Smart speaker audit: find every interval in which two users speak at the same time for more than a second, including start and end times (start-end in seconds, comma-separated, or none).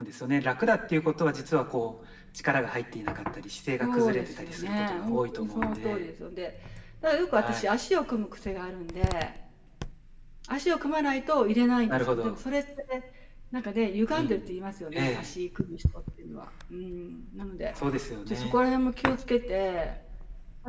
3.8-6.0